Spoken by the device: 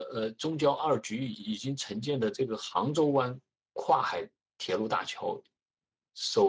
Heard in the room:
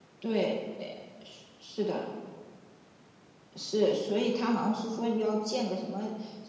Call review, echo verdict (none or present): none